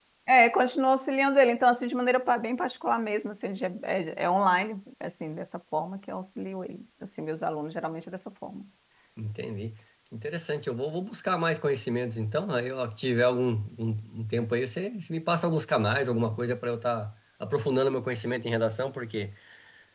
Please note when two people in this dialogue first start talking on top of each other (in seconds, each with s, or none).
none